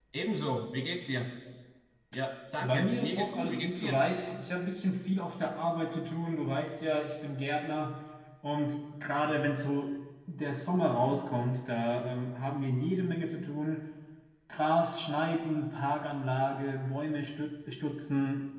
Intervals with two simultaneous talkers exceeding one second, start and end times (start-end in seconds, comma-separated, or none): 2.6-4.0